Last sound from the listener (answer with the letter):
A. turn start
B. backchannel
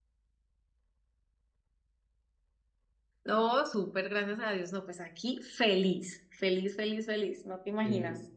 A